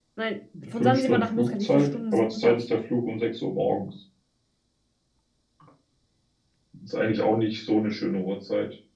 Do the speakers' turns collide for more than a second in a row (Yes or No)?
Yes